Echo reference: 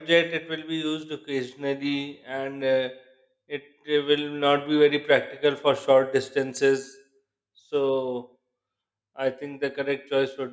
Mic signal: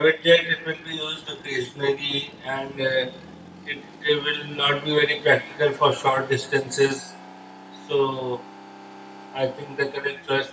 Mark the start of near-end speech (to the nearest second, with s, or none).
none